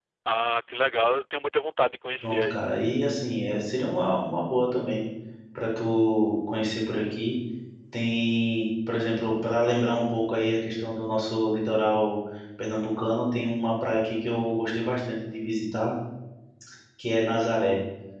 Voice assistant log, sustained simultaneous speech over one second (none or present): none